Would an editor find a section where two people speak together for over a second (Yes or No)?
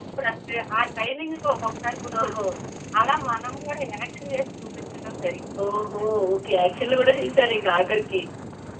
No